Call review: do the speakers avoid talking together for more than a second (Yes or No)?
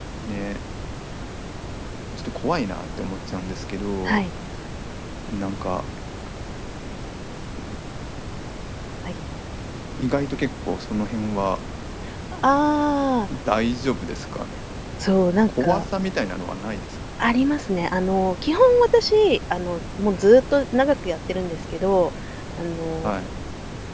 Yes